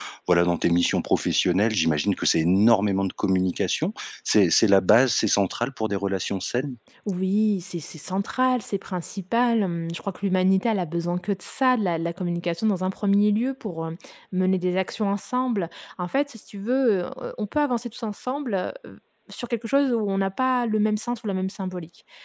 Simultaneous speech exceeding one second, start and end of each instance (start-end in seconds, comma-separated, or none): none